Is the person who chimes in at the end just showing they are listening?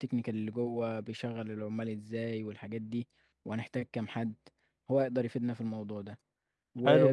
Yes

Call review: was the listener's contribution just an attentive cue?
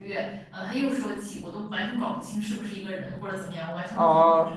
No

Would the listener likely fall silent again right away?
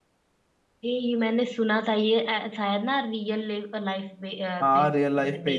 No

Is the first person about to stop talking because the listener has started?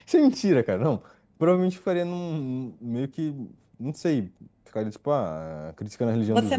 Yes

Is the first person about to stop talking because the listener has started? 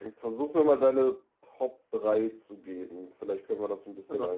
Yes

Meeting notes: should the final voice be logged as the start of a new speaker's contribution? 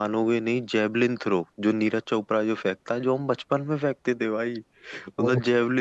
No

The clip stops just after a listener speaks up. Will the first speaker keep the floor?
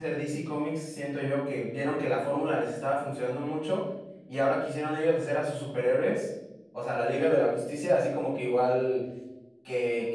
Yes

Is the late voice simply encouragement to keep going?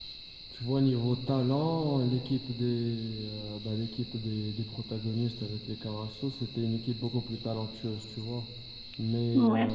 Yes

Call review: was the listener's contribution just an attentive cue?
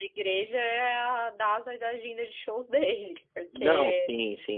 No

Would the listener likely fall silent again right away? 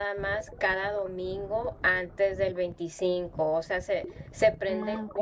Yes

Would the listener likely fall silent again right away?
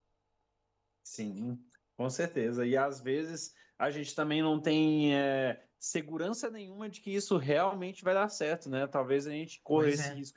Yes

